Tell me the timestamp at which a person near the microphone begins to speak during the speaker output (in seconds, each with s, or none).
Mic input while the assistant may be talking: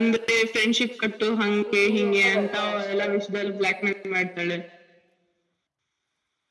1.6 s